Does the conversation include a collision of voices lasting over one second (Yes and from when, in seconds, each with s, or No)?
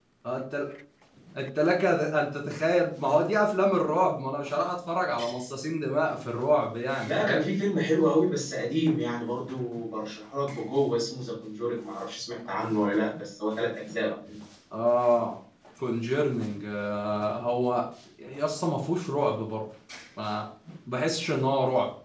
No